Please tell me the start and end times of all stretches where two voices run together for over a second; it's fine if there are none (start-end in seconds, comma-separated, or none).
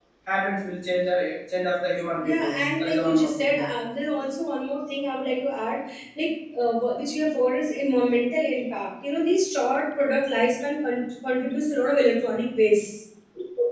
2.2-3.7